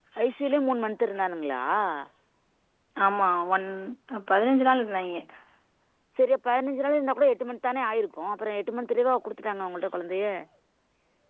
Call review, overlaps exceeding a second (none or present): none